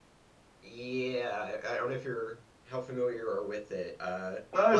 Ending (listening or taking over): taking over